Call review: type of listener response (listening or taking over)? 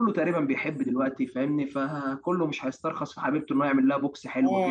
taking over